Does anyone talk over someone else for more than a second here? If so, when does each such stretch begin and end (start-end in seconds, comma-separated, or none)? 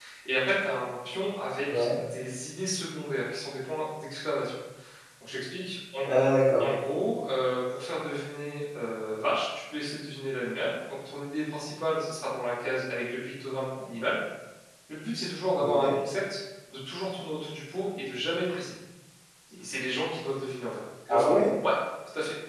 none